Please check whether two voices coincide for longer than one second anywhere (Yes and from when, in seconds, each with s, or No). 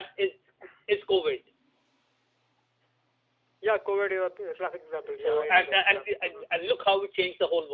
Yes, from 5.0 s